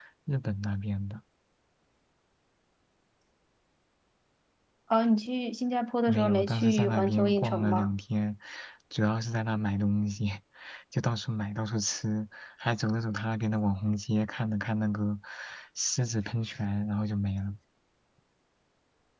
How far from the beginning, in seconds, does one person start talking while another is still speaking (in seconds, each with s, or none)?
6.1 s